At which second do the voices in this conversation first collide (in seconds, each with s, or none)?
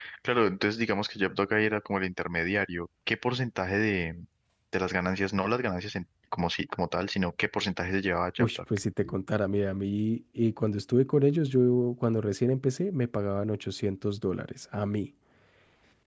none